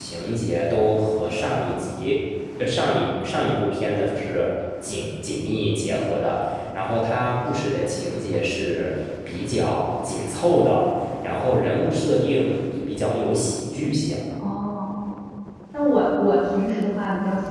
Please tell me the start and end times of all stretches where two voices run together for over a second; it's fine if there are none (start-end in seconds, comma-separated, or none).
none